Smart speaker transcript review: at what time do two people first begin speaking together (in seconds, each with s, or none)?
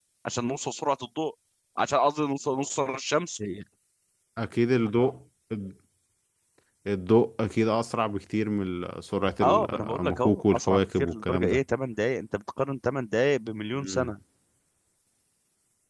9.4 s